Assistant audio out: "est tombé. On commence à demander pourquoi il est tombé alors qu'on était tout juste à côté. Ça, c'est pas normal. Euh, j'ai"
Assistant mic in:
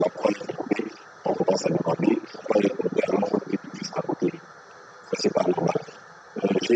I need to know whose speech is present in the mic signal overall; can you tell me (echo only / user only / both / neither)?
echo only